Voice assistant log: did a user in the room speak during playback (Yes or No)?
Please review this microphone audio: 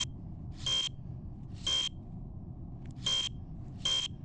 No